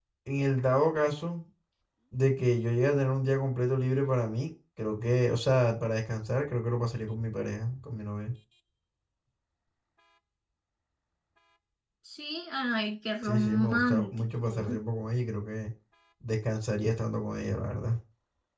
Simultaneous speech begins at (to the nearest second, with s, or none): 13 s